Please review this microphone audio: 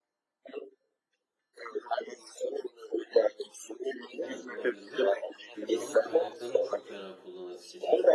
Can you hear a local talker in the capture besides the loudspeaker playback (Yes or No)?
Yes